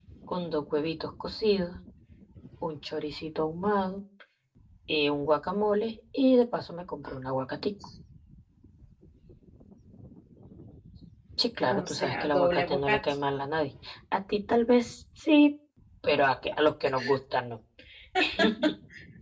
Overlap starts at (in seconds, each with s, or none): 11.7 s